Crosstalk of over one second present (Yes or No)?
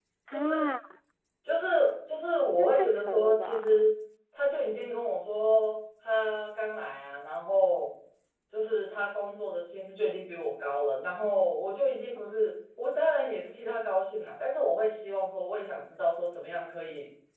Yes